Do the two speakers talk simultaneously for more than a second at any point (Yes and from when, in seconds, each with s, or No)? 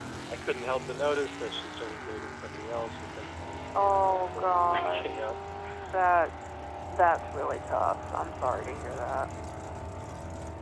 Yes, from 3.8 s